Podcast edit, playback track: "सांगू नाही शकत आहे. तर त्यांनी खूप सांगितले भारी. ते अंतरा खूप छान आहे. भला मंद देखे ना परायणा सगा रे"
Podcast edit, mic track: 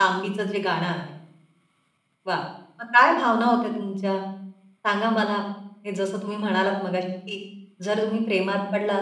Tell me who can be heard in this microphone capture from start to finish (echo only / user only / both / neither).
user only